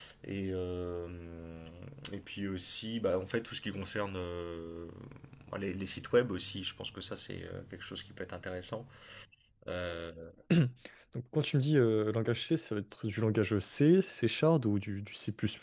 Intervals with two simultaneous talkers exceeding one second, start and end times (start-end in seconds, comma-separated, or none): none